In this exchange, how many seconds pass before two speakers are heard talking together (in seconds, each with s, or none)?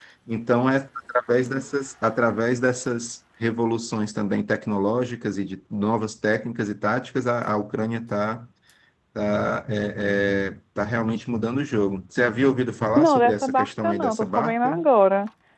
12.9 s